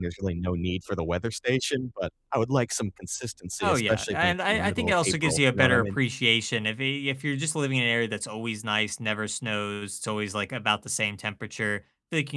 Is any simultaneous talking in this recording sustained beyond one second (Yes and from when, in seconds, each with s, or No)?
Yes, from 3.6 s